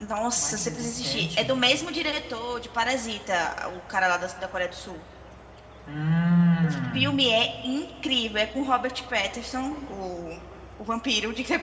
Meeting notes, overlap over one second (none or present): present